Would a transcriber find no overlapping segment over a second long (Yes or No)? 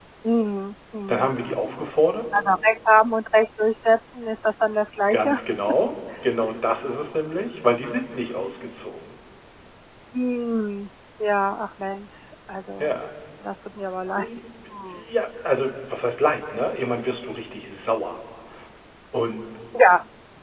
Yes